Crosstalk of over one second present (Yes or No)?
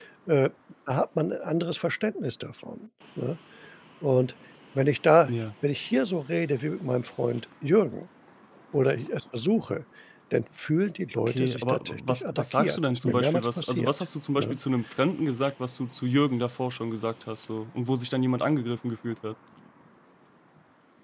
Yes